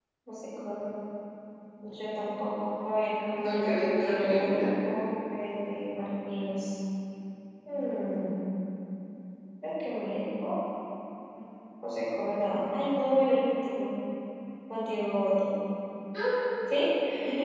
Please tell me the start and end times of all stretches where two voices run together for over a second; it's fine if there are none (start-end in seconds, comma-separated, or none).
3.4-4.7